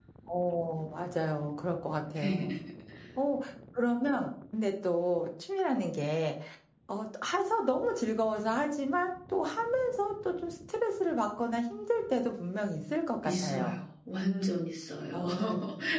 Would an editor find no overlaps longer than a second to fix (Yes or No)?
Yes